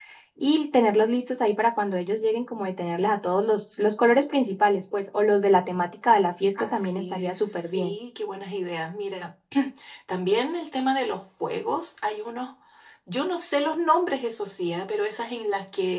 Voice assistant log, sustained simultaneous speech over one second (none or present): present